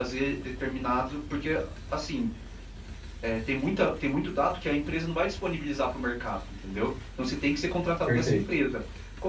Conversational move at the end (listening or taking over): listening